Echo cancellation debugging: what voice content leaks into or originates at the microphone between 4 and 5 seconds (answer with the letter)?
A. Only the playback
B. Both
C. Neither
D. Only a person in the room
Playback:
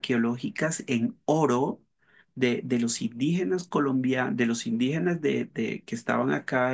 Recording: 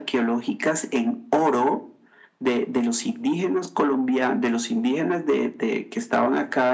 A